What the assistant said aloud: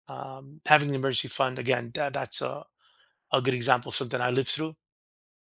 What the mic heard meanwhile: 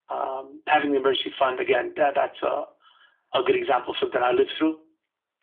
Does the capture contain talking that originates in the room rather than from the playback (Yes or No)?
No